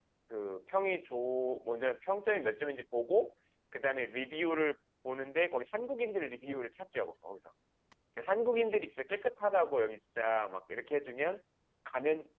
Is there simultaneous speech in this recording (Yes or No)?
No